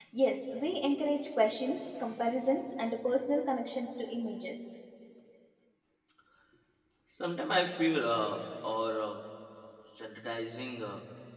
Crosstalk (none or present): none